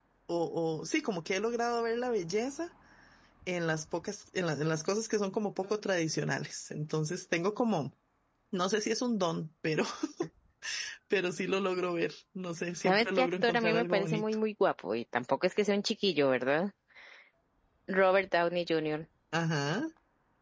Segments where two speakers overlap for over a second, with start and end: 12.8-14.2

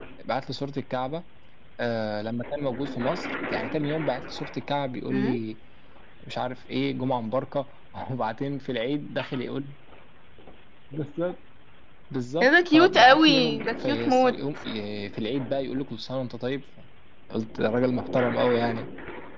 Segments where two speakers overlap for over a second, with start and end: 12.4-14.4

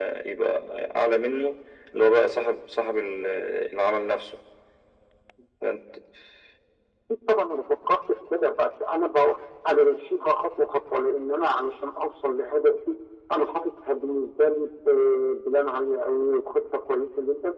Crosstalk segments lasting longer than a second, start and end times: none

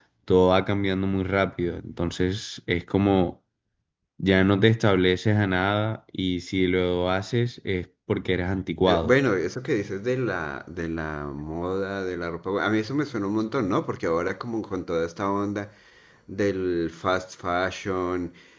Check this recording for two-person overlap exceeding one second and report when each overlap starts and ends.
none

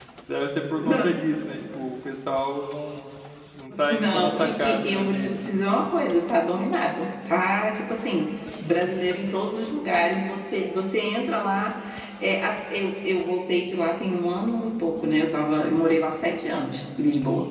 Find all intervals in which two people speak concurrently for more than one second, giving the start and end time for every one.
3.9-5.3

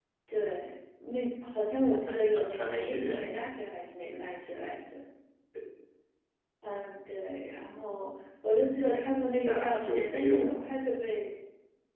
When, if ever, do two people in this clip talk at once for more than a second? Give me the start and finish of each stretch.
2.1-3.3, 9.4-10.6

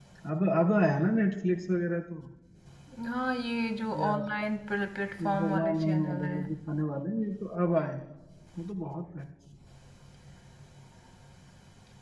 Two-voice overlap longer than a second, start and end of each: 5.2-6.4

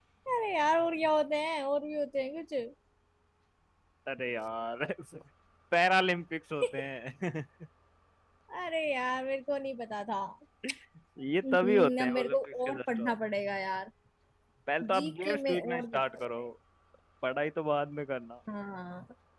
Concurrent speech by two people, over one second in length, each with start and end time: 11.5-13.1, 15.0-16.4

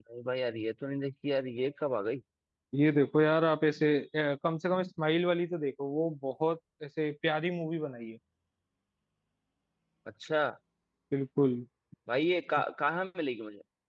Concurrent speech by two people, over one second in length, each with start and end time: none

